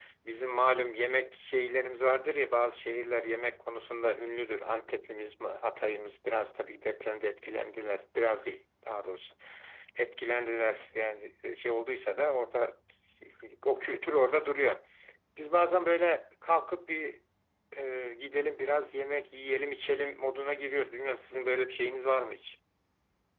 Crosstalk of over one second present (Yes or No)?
No